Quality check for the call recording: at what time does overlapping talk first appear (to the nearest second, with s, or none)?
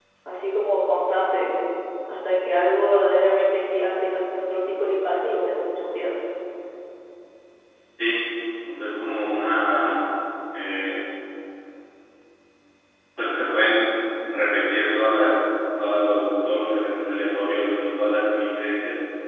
none